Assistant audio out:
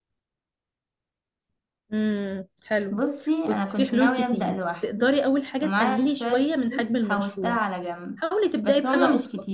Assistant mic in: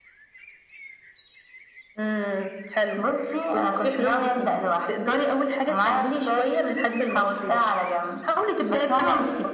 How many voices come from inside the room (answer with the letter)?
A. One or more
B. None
B